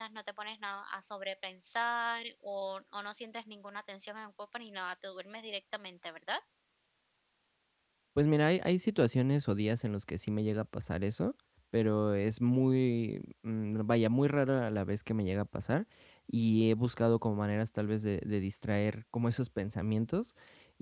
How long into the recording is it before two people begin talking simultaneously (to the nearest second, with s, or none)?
none